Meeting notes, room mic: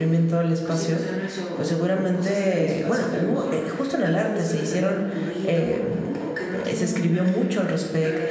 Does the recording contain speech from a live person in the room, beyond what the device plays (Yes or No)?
Yes